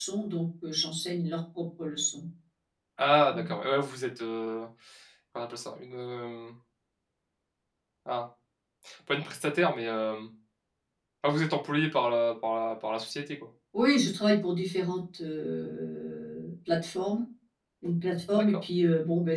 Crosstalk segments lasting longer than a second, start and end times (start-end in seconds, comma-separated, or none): none